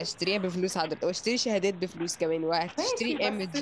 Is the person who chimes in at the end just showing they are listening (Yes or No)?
No